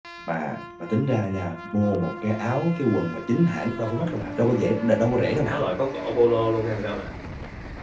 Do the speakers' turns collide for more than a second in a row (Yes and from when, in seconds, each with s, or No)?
No